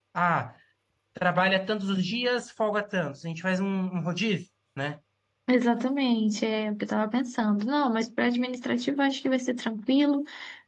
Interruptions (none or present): none